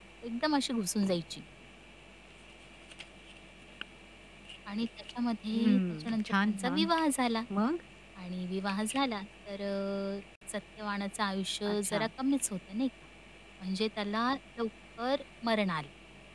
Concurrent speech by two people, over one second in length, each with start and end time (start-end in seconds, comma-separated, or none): 5.5-6.9